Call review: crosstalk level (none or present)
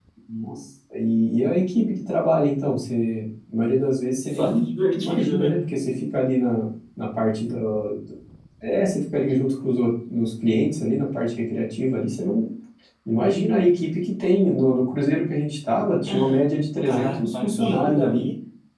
present